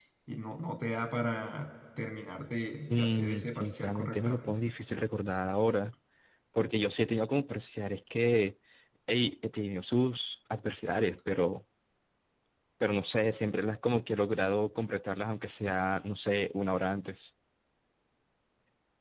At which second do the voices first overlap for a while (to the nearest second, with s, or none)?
3 s